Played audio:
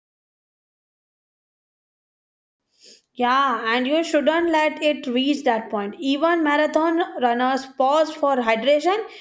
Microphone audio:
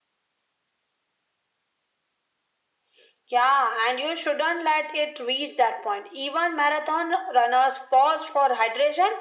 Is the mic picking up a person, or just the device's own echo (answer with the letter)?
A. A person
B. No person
B